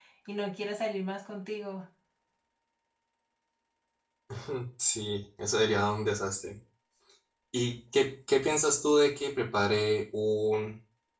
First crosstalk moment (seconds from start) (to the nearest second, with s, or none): none